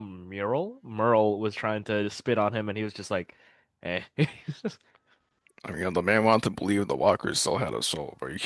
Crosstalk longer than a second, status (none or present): none